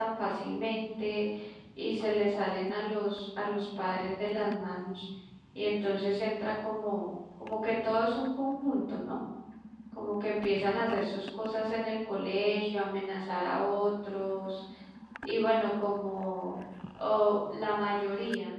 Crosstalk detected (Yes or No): No